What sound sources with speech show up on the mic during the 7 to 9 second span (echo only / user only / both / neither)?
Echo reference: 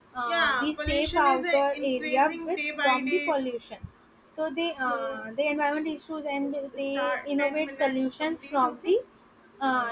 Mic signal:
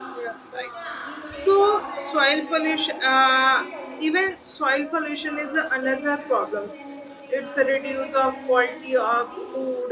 both